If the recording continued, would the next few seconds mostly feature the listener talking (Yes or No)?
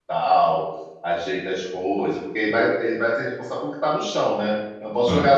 No